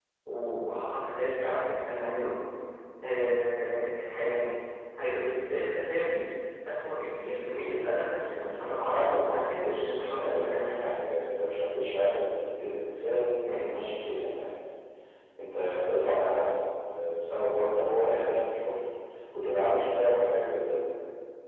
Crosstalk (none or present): present